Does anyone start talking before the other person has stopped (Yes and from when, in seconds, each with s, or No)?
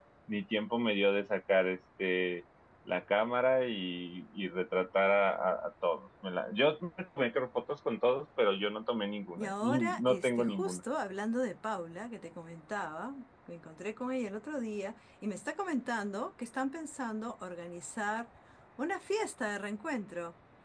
Yes, from 9.4 s